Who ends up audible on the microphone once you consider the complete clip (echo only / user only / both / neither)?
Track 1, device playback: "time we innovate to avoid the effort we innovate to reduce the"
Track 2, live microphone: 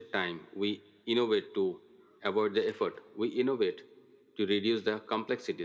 echo only